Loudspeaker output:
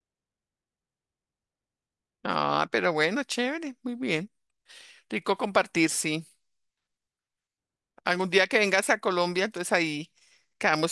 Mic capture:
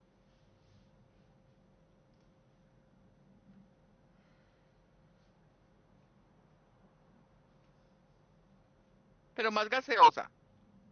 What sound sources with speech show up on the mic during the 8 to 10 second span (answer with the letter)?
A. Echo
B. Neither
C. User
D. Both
C